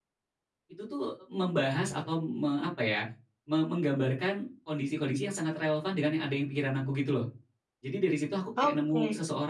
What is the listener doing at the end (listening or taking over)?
listening